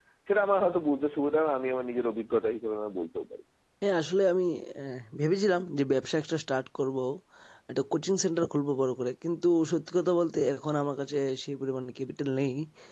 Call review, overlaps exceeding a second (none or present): none